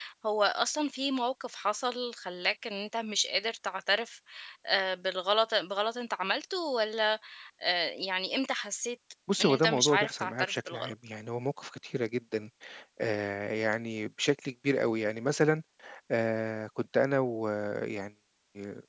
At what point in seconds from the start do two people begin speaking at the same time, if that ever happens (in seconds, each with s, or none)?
9.3 s